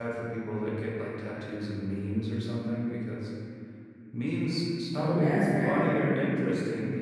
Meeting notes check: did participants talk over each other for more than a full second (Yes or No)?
Yes